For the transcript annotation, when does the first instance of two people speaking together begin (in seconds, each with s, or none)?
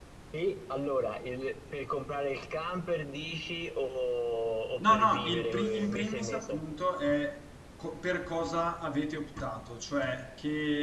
4.8 s